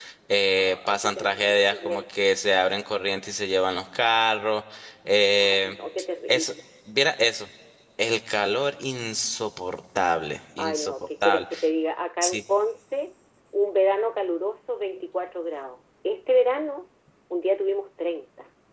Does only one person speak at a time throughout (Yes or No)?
No